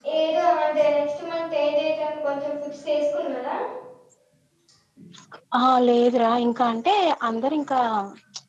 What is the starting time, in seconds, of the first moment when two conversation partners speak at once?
none

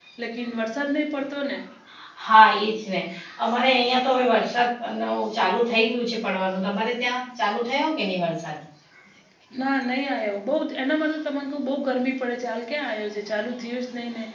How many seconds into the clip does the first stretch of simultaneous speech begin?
none

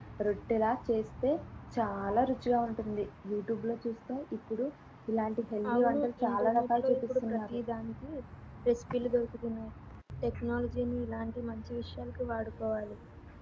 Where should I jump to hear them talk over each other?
5.7 s

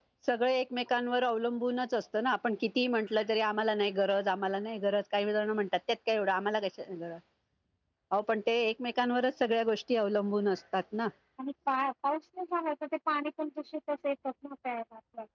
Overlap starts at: none

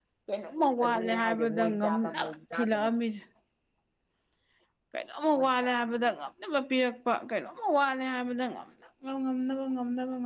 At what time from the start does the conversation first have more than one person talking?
0.8 s

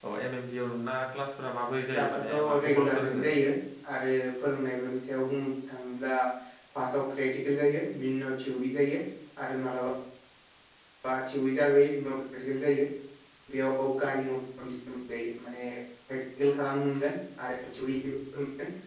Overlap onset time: 1.9 s

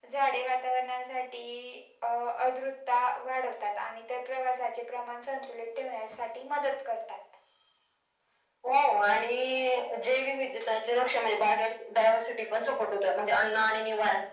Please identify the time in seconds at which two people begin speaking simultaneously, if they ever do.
none

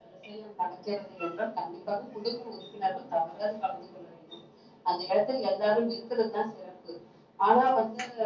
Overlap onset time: none

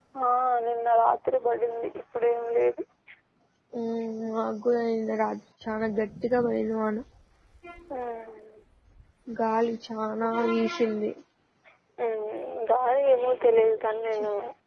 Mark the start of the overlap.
none

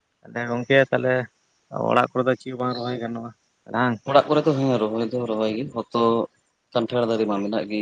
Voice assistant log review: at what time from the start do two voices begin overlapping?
none

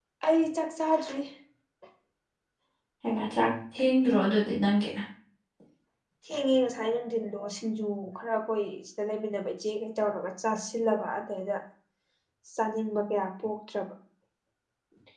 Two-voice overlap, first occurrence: none

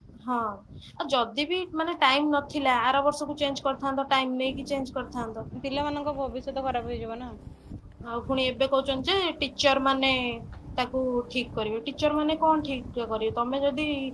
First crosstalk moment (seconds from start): none

